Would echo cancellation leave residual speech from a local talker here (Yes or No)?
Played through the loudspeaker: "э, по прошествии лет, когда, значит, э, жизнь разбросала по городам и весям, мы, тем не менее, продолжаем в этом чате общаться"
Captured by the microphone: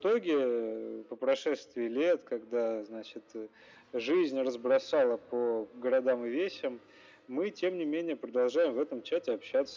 No